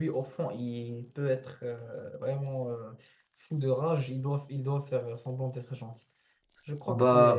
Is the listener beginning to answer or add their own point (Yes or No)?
Yes